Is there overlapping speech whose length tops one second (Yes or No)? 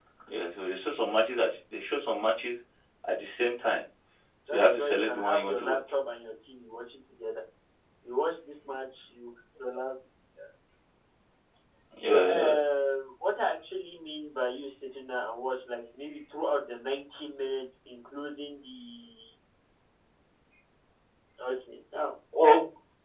Yes